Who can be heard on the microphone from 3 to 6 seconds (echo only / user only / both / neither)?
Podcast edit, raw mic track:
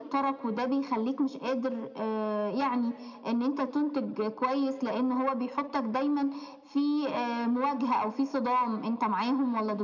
echo only